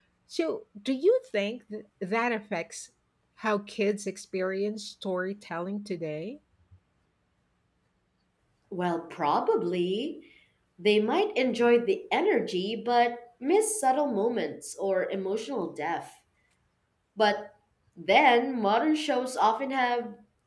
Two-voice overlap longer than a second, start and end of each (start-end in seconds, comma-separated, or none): none